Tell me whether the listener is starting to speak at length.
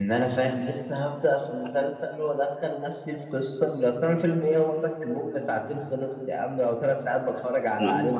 Yes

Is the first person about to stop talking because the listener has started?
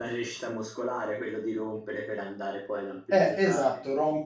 Yes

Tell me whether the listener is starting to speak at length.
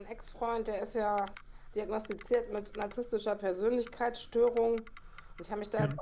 No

